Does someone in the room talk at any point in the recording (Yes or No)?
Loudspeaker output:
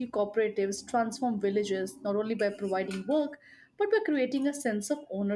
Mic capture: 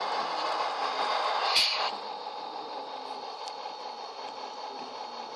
No